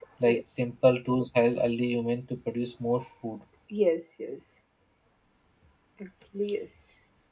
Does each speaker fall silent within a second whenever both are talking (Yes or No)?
Yes